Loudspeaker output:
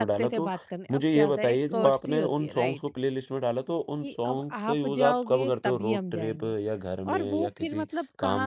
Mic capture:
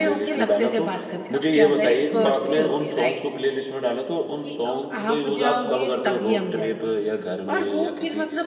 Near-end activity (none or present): none